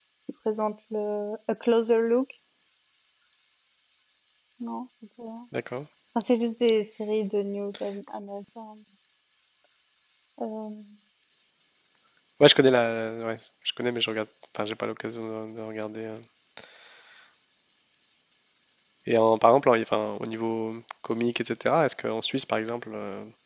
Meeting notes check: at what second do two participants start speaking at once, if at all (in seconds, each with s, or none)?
none